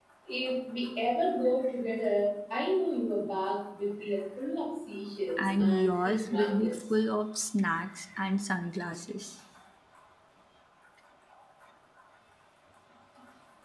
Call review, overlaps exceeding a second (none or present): present